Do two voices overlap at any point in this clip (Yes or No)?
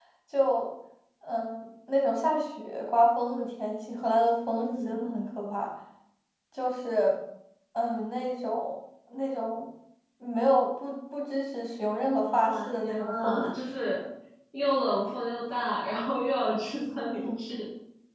Yes